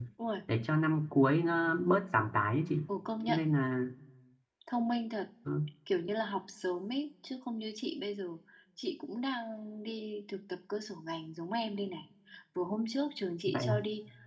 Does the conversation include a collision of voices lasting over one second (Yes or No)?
No